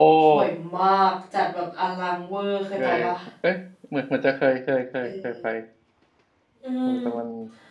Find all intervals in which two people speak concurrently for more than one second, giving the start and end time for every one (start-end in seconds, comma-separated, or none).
none